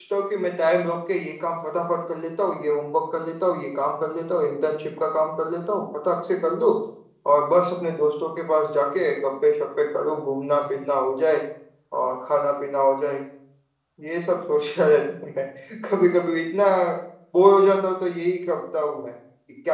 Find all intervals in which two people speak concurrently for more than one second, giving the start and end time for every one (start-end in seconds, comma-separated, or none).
none